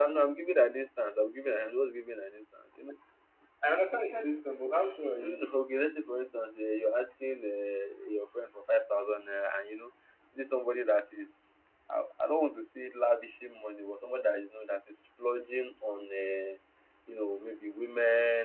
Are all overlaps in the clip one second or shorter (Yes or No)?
Yes